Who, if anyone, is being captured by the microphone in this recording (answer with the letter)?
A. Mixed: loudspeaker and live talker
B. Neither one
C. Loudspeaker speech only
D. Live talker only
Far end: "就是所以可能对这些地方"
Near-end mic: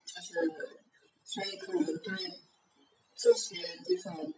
C